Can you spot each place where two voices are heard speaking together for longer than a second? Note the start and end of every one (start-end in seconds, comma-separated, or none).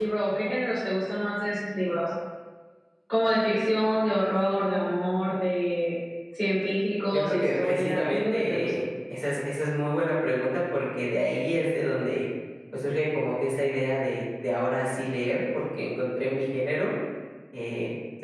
7.1-8.7